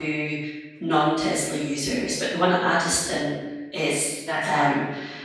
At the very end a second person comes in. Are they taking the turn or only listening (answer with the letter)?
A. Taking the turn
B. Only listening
B